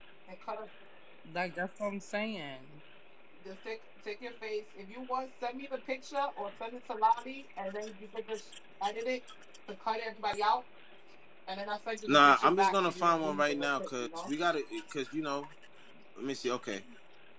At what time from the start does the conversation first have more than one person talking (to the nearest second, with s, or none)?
12 s